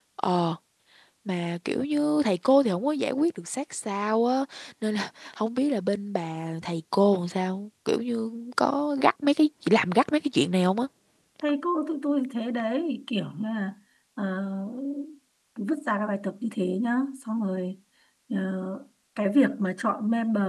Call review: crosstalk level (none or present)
none